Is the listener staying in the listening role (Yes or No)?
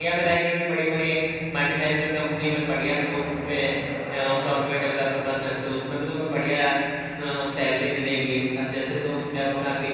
Yes